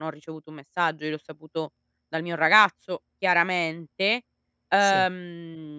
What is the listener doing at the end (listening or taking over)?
listening